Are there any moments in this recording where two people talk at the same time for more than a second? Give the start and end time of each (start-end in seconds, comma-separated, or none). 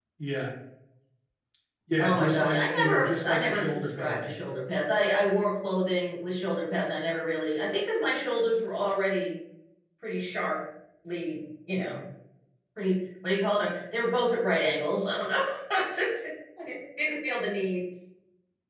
2.0-4.3